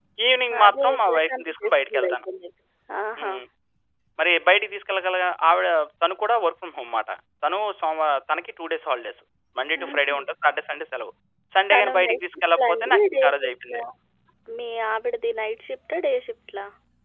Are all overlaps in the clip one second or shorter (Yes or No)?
No